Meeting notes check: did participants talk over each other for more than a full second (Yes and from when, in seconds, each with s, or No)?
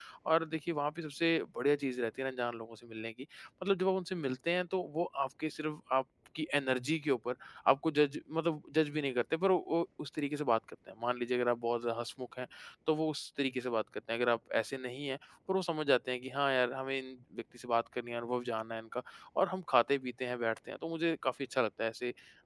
No